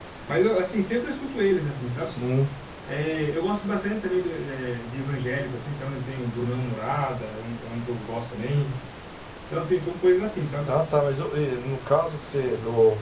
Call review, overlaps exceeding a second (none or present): none